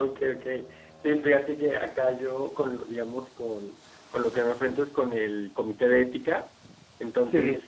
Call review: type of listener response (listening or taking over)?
listening